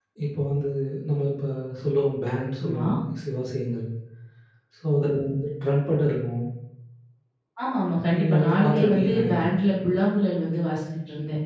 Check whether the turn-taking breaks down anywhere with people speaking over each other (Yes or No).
Yes